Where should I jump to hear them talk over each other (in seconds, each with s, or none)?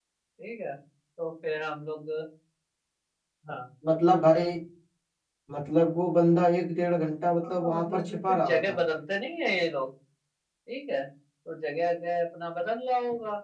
7.4 s